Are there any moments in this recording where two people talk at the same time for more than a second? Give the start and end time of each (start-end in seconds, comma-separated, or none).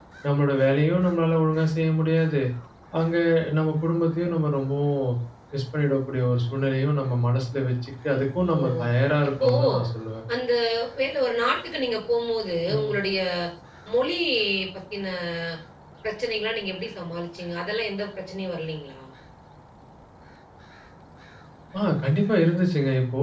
none